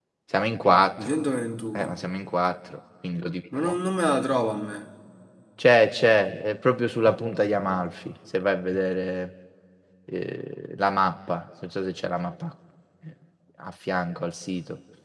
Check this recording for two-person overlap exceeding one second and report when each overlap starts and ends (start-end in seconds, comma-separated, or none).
none